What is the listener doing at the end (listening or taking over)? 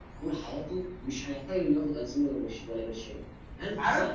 taking over